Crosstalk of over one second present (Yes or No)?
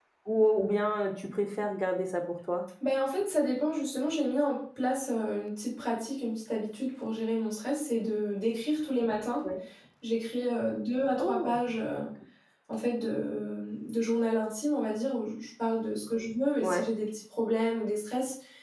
No